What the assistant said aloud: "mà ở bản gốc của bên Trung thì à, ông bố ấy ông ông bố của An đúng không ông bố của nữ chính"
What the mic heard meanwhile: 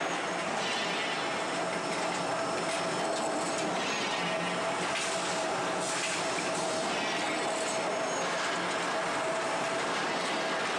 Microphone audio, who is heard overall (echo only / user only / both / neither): neither